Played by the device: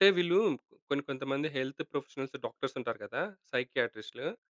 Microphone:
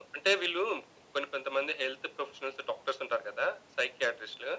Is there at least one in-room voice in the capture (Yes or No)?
No